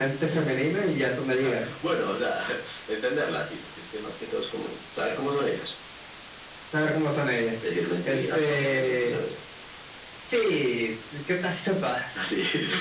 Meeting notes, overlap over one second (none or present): present